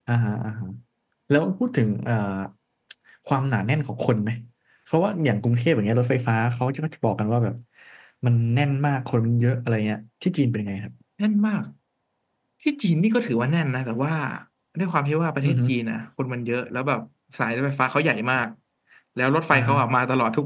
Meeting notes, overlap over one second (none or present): none